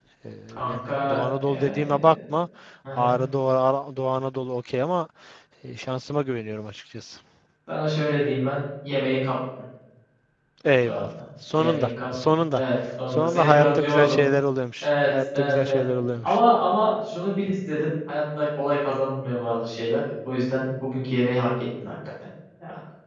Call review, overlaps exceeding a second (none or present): present